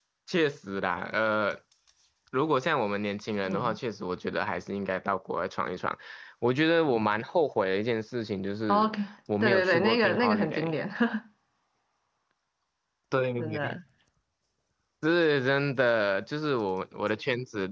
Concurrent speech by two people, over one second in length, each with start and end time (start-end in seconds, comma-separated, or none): 9.4-10.8